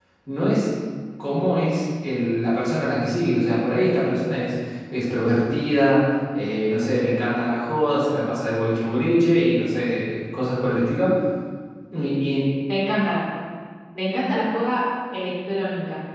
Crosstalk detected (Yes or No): No